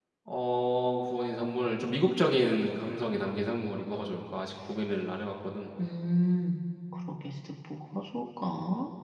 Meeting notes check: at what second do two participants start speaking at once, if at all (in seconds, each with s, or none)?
none